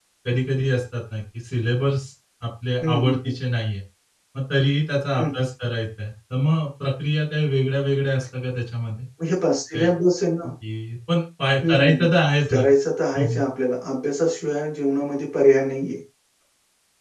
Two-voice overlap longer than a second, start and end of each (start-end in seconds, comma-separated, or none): none